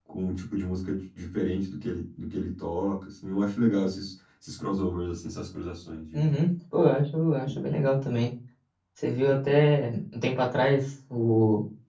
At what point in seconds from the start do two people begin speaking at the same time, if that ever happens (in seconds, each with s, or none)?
none